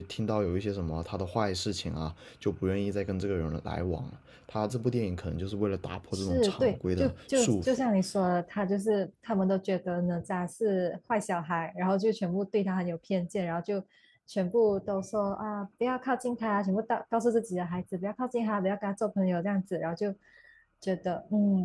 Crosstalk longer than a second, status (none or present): present